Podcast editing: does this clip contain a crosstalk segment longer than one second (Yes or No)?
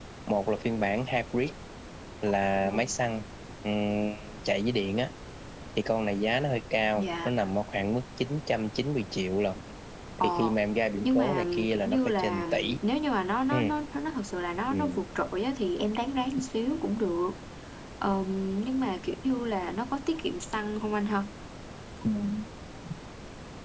Yes